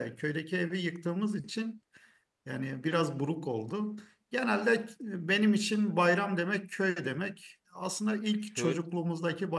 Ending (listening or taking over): listening